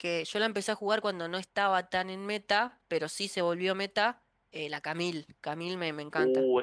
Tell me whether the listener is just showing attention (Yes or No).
No